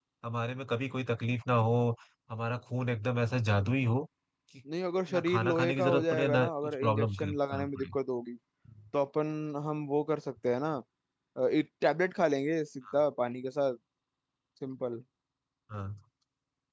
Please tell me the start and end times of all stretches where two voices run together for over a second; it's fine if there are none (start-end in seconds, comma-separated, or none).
5.2-8.0